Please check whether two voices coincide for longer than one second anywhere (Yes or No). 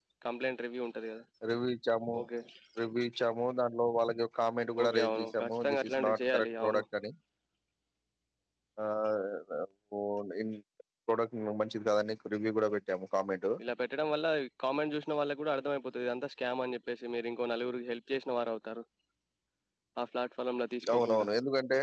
Yes